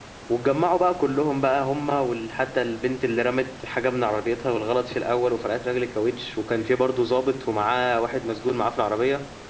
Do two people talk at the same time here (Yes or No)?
No